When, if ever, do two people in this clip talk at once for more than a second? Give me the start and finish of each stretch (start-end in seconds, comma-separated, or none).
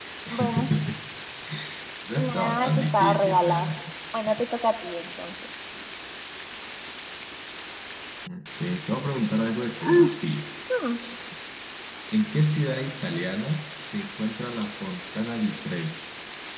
2.1-3.7